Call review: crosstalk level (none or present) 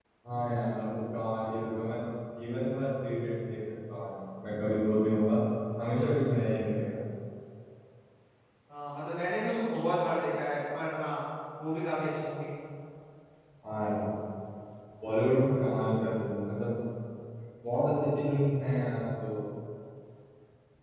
none